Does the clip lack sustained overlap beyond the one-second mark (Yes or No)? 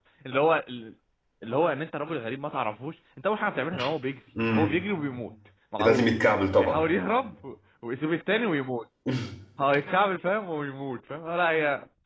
Yes